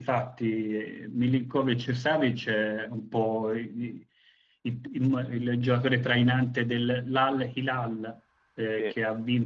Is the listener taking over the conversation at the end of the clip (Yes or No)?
No